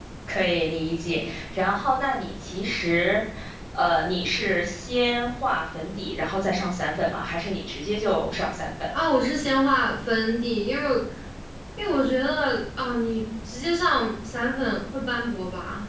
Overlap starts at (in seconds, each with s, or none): none